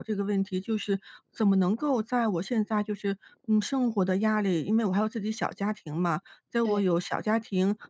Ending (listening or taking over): listening